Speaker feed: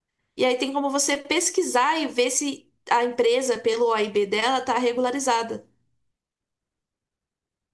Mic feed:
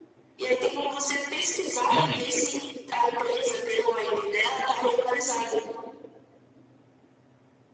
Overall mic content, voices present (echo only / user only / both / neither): both